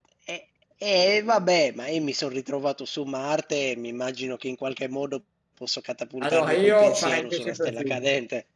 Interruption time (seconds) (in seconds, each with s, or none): 6.2 s